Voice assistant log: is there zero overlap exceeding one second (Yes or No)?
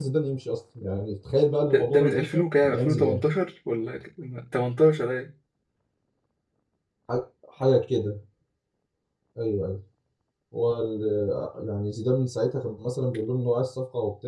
No